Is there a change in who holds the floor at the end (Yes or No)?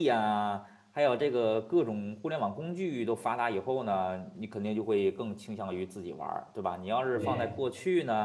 No